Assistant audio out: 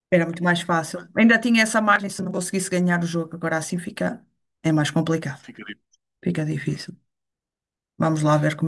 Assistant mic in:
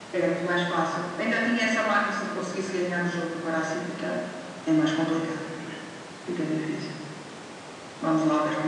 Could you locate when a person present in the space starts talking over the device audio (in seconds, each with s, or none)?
none